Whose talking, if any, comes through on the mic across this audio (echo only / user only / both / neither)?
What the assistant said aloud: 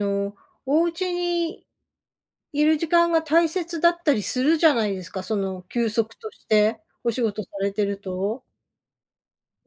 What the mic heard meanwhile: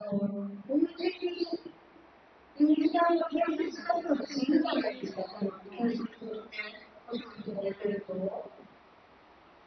both